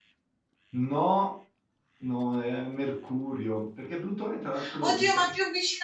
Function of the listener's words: taking over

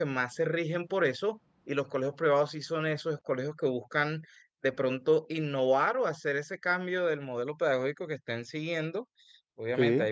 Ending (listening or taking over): listening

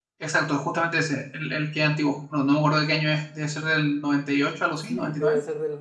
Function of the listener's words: taking over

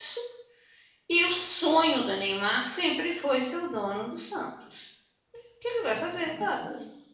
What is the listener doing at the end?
taking over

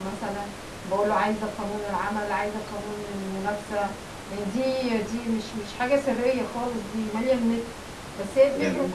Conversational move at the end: listening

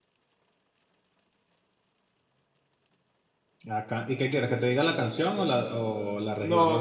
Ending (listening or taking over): taking over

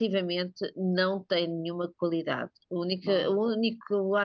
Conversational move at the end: listening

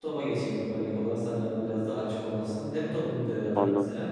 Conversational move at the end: listening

